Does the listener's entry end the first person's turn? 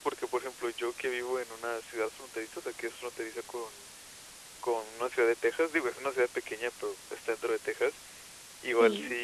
No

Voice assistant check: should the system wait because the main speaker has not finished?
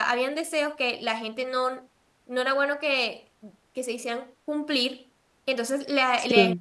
Yes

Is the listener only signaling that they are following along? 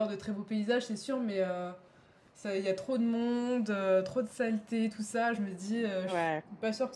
Yes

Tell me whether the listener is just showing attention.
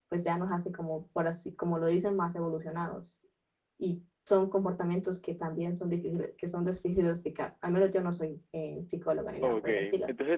No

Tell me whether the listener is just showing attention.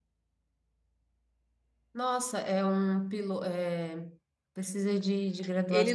No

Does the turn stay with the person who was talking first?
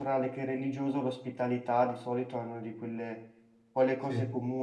Yes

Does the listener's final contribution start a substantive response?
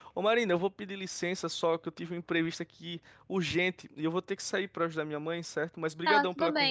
Yes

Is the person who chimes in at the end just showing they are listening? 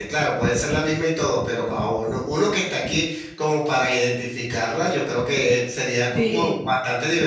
Yes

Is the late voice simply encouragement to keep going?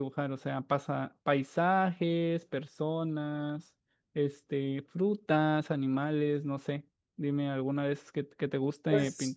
No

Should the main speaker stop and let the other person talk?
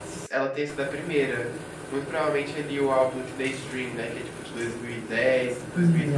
No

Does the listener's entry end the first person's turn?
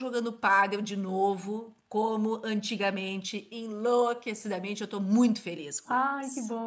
Yes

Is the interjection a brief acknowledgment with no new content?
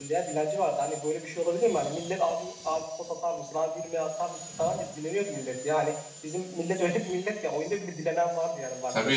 No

